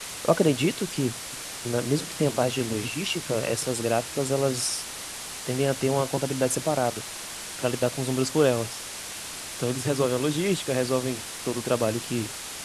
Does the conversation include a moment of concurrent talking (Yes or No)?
No